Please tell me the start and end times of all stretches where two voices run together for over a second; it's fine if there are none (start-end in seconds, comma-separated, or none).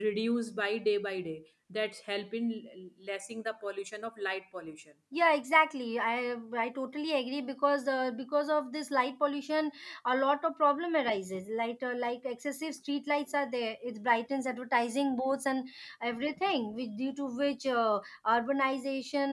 none